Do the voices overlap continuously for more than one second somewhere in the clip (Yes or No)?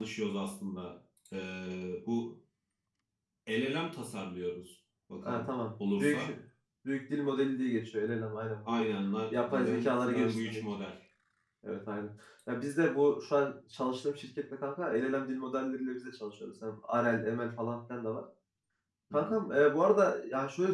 Yes